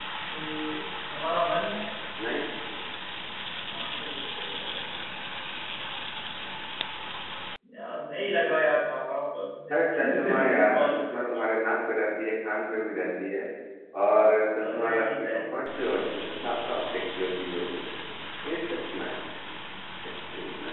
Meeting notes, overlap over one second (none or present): present